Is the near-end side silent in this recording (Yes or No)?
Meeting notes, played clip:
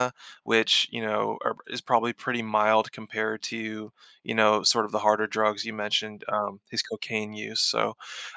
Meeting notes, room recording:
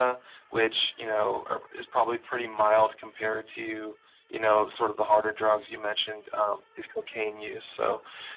Yes